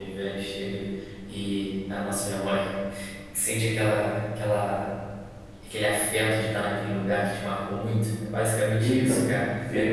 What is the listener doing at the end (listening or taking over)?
taking over